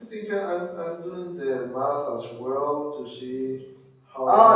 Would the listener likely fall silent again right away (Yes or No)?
No